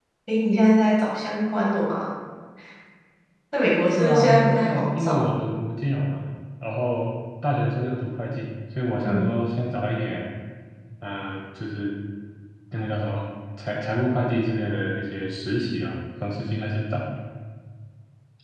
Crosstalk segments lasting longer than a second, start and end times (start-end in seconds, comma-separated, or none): 3.9-5.3